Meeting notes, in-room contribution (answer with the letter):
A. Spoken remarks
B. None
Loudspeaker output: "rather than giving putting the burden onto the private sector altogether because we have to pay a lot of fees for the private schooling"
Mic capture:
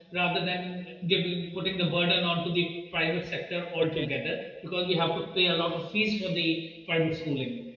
A